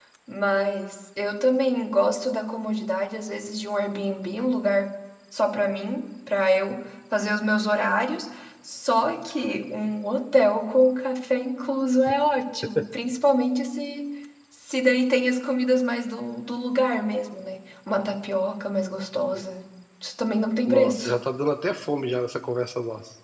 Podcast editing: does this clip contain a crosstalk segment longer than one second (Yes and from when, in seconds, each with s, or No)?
No